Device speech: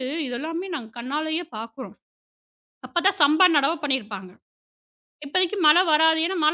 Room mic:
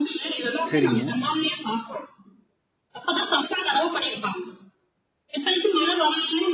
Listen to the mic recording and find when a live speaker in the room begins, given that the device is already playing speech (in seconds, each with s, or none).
0.7 s